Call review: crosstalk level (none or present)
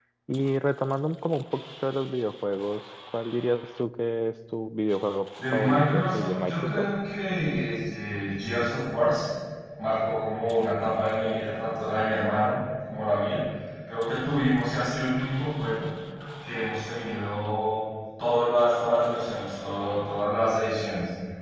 present